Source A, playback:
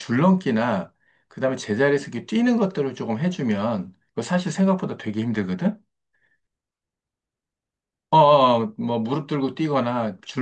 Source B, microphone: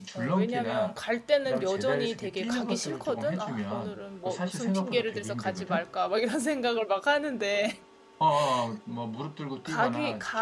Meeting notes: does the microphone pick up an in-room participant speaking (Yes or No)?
Yes